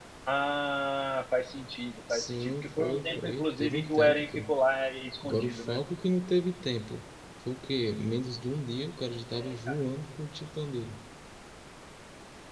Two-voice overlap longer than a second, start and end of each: 2.1-4.4

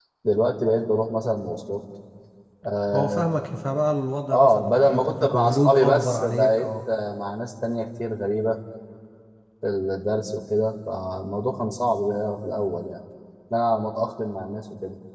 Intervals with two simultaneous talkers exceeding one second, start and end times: 4.3-6.7

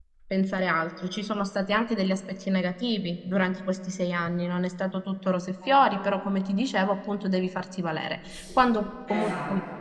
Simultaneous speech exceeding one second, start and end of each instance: none

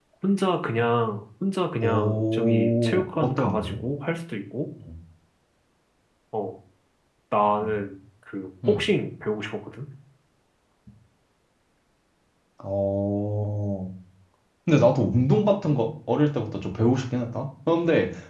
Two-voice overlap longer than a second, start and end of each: 1.8-3.8

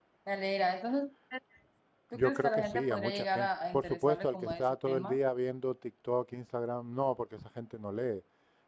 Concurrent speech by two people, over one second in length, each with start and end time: 2.1-5.2

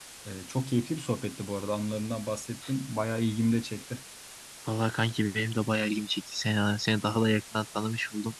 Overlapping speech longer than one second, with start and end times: none

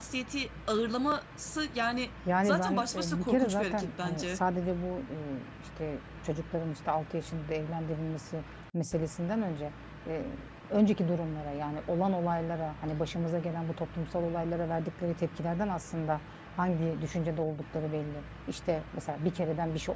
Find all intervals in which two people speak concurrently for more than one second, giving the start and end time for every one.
2.4-4.4

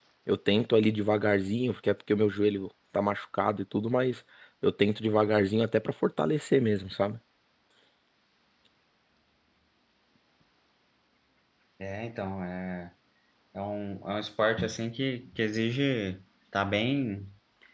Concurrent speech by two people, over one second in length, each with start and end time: none

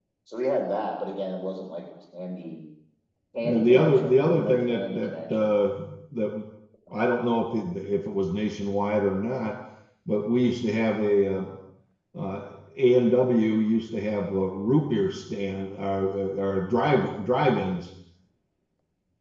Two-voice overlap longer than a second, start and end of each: 3.4-5.6

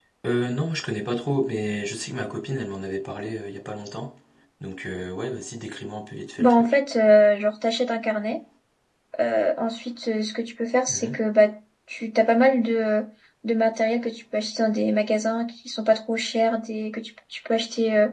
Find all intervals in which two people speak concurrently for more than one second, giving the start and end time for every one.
none

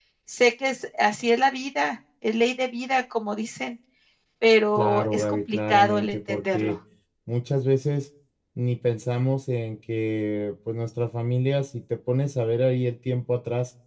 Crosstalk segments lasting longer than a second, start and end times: 4.8-6.8

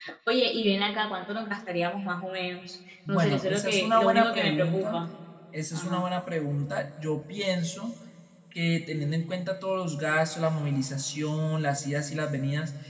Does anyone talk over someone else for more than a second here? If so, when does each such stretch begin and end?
3.1-5.0

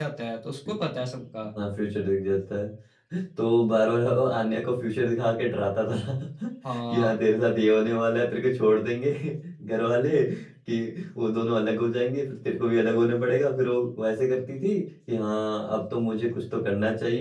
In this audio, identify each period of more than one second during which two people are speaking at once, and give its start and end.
none

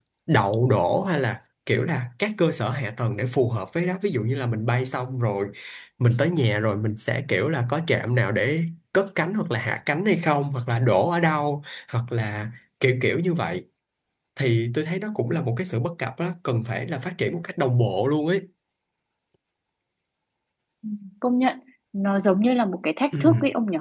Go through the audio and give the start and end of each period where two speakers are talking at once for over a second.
none

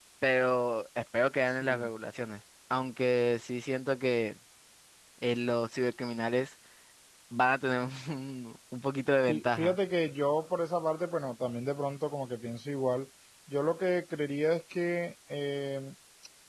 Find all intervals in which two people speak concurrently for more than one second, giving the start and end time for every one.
none

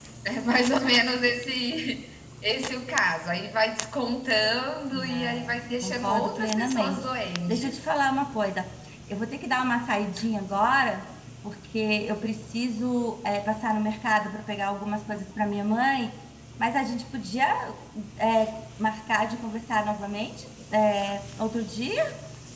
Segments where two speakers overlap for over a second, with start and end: 5.1-7.1

